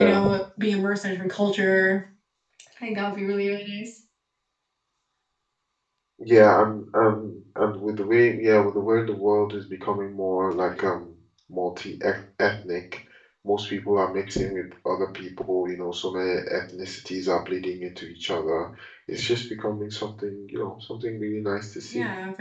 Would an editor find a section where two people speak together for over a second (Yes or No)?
No